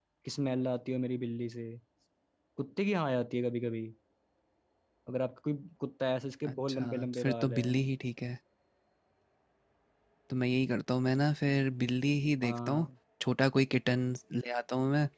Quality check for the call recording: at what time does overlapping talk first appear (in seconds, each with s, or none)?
6.5 s